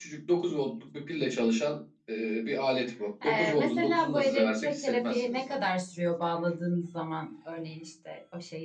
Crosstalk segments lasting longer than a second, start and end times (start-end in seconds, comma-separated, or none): 3.2-5.6